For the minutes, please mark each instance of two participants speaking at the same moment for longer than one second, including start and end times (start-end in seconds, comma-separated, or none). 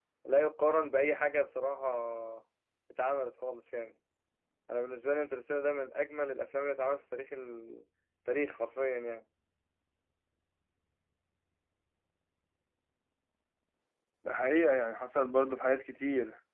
none